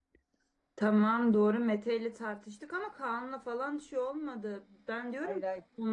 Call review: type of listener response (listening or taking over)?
listening